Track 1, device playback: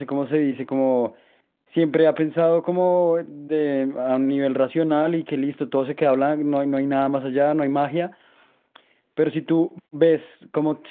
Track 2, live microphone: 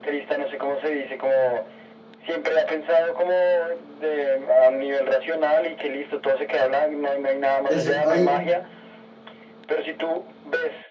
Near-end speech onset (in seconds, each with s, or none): 7.7 s